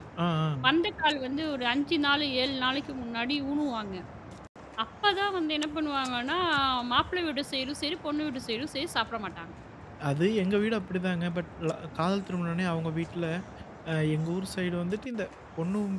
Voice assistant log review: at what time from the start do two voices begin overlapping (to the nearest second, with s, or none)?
none